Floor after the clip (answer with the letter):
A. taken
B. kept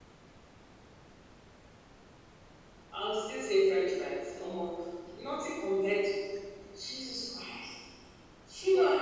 B